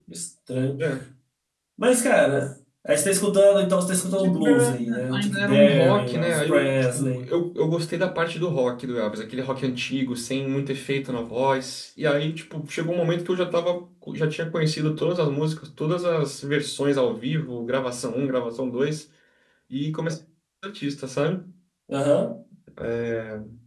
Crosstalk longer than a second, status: present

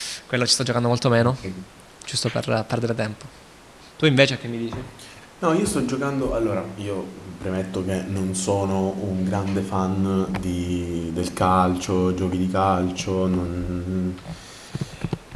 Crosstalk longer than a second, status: none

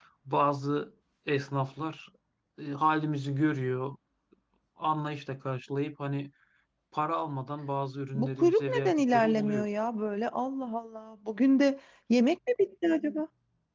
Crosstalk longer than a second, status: present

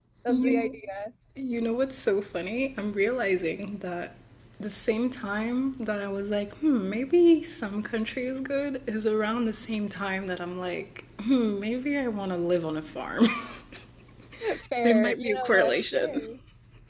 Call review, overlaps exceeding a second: present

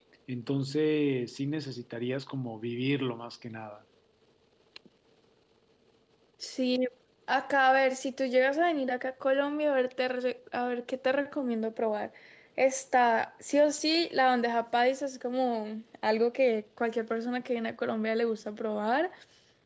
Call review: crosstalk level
none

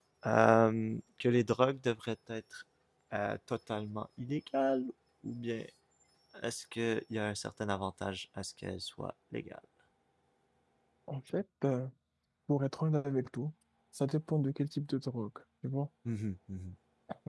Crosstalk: none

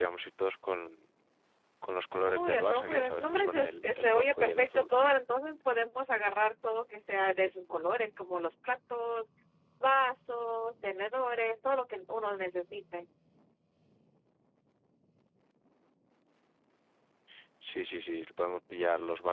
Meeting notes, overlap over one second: present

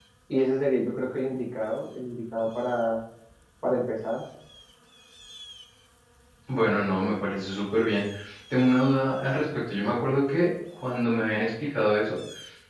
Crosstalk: none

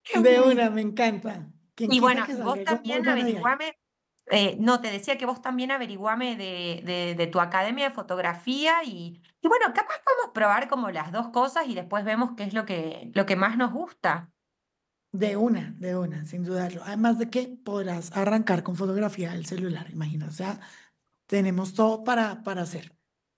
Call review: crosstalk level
present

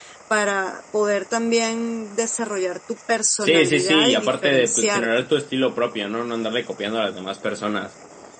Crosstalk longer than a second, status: present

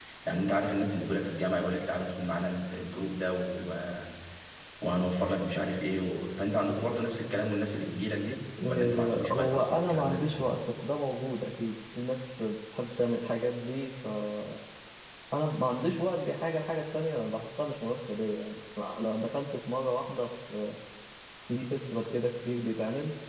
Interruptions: present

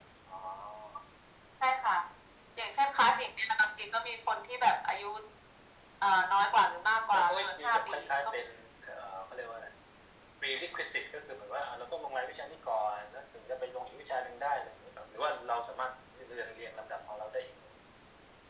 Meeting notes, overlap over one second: present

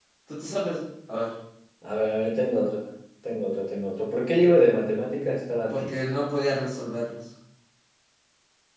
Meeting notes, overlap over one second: none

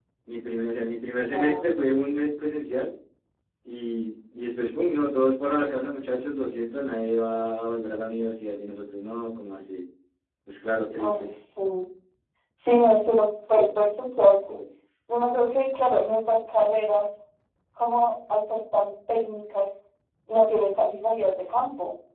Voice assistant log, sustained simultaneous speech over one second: none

